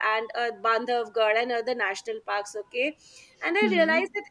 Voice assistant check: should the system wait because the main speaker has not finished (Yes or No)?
Yes